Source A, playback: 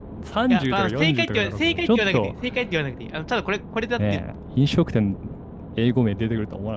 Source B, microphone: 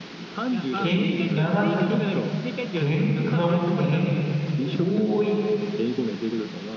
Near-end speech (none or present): present